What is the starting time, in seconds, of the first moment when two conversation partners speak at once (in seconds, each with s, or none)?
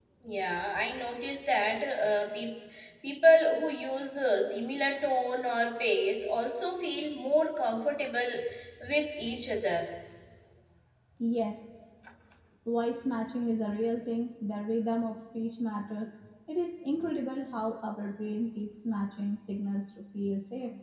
none